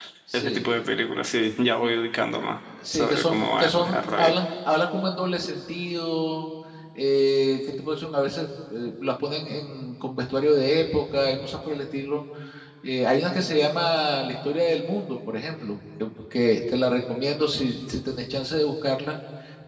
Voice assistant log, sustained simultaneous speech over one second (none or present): present